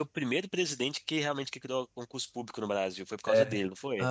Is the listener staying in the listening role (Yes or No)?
No